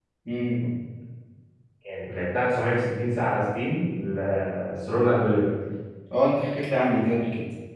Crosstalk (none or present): none